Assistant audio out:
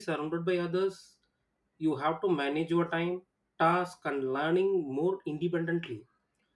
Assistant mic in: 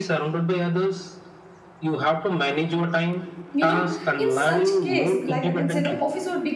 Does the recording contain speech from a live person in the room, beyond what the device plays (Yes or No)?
Yes